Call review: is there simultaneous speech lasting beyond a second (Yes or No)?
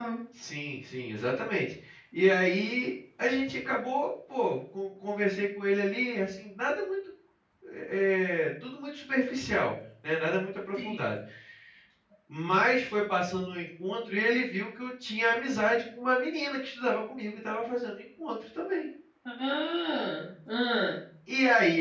No